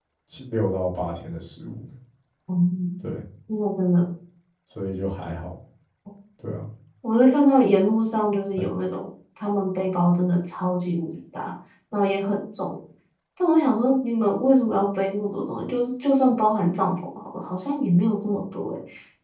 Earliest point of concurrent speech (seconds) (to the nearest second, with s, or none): none